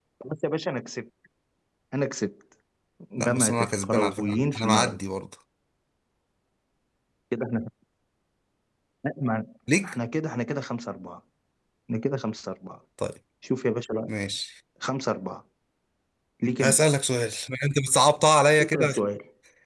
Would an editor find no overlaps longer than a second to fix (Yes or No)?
No